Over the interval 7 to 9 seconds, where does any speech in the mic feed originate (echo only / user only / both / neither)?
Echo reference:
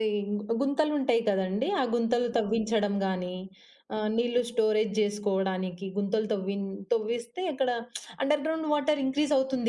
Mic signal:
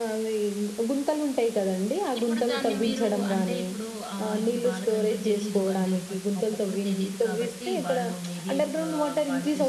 both